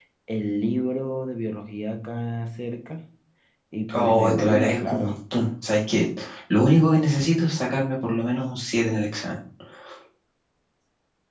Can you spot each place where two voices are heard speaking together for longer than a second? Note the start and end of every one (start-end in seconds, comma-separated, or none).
3.9-5.2